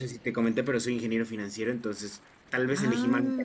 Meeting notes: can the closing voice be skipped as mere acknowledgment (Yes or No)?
Yes